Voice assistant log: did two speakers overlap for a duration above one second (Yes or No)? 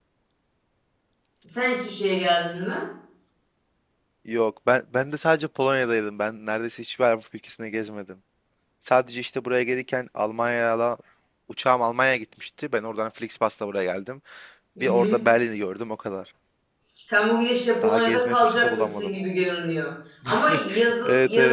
Yes